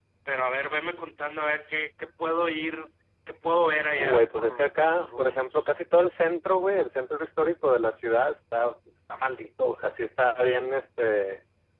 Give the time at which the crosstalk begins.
3.9 s

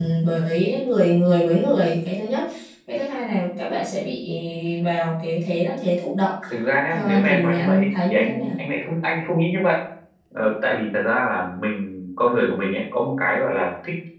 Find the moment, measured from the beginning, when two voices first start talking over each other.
6.9 s

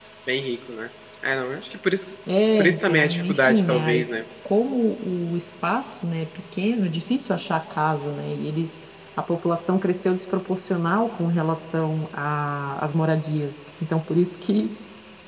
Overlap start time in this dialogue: 2.6 s

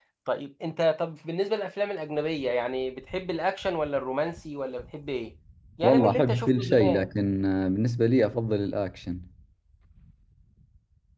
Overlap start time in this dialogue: 5.8 s

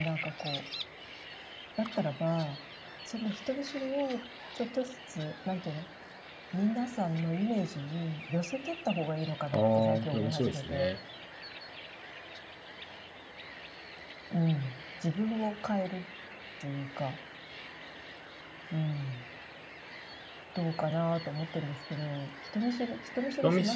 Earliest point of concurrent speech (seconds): 9.6 s

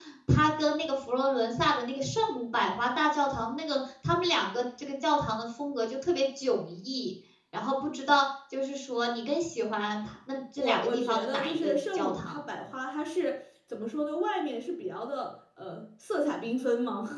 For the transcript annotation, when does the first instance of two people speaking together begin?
10.6 s

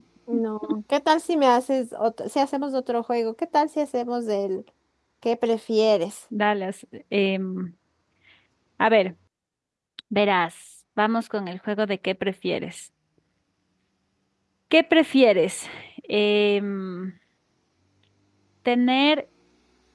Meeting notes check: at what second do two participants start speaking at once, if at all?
none

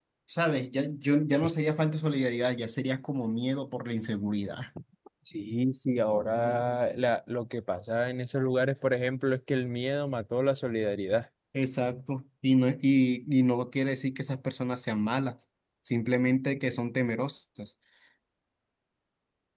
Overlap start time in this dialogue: none

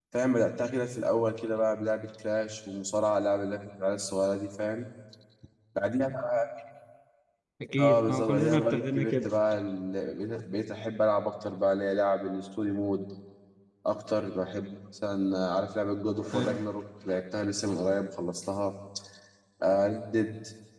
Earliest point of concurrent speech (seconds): 7.8 s

